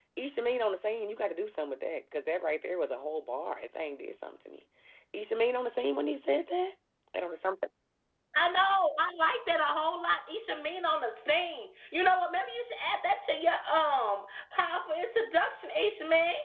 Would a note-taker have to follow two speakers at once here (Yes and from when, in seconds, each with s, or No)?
No